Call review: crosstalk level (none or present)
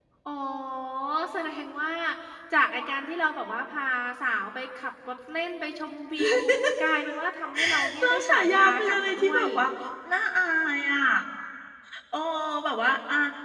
present